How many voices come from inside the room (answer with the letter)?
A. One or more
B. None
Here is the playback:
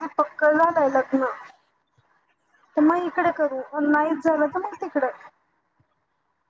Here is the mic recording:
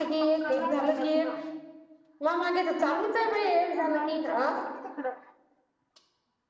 A